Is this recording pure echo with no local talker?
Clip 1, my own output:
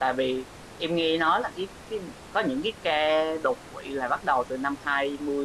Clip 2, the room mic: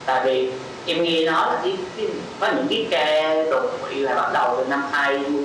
Yes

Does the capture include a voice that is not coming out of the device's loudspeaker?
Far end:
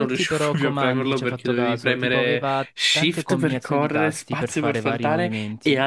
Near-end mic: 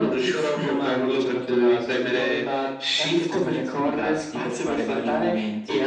No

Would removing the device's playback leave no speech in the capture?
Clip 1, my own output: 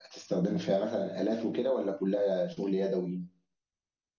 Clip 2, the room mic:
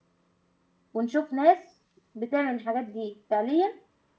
No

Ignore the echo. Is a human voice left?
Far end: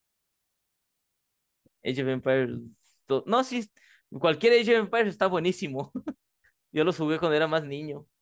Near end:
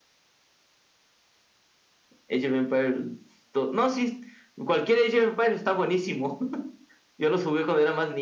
No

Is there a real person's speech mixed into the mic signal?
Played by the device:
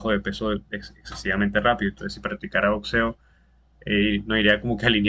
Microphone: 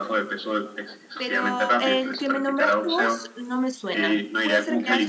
Yes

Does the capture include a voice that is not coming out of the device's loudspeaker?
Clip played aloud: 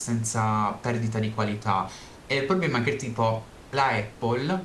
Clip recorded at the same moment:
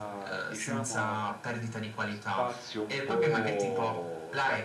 Yes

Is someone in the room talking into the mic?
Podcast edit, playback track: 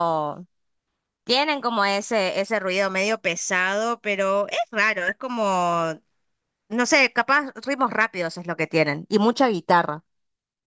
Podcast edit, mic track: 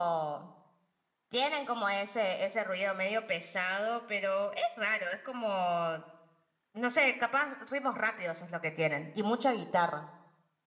No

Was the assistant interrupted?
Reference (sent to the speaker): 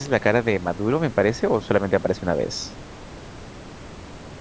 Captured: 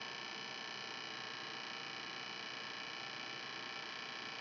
No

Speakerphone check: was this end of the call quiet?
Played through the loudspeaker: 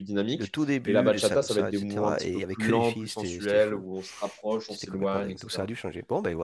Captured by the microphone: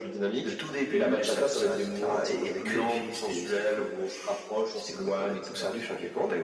Yes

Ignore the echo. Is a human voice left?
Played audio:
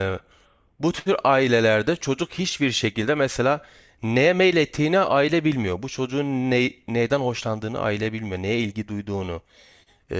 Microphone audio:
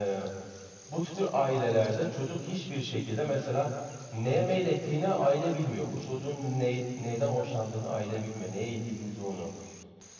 No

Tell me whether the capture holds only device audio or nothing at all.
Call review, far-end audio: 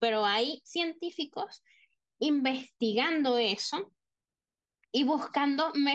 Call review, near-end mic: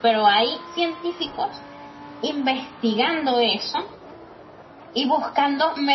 Yes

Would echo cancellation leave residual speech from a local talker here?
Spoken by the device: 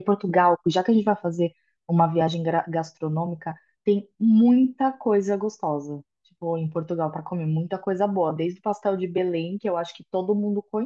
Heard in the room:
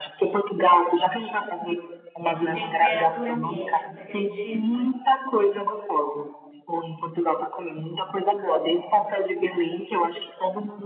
Yes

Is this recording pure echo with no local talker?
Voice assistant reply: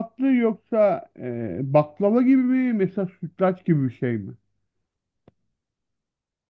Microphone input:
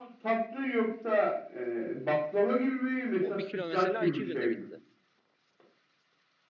No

